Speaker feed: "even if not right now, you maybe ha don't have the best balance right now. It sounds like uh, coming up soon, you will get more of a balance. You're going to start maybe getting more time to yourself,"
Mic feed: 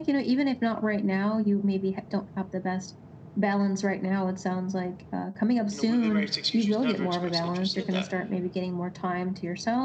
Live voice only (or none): You know, we've been married six years. She's never expressed interest in that.